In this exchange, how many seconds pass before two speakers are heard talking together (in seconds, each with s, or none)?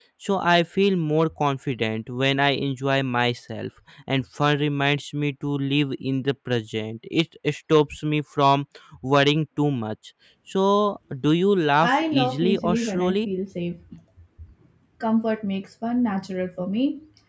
11.8 s